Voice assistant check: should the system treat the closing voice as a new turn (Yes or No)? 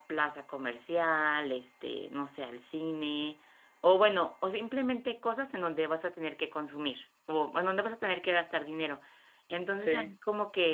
No